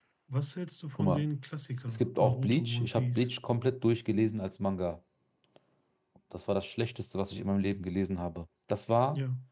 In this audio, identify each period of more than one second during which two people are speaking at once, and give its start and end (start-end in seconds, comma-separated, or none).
1.9-3.3